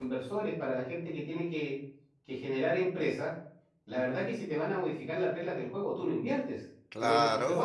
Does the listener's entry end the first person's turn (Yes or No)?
Yes